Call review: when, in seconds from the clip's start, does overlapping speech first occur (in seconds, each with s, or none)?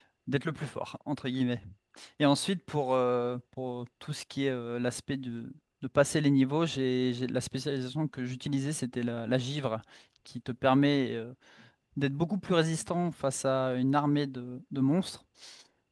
none